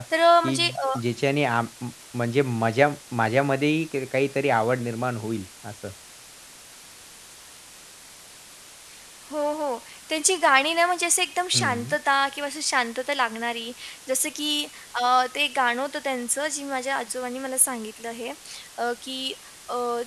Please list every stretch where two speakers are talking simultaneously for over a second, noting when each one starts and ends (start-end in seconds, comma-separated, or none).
none